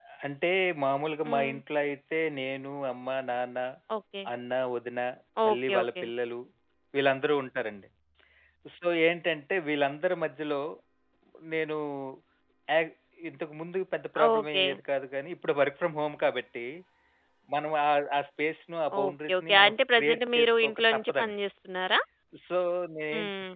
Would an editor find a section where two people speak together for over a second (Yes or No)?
Yes